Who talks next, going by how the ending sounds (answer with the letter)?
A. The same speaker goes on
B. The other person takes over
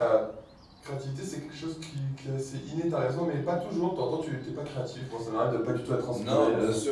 B